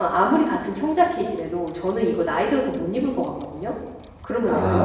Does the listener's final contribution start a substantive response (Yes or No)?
Yes